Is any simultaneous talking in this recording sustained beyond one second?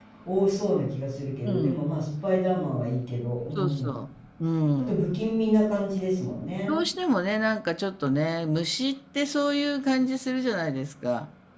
No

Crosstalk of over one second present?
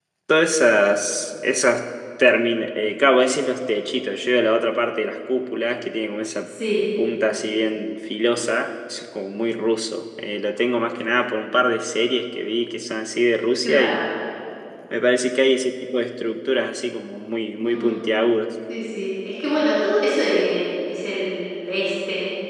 No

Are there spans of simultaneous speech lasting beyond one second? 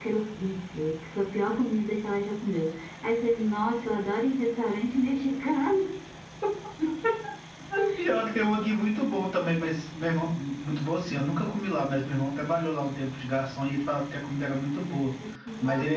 No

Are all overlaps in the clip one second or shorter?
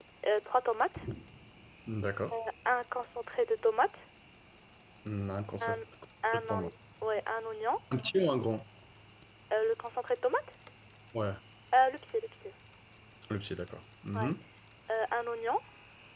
Yes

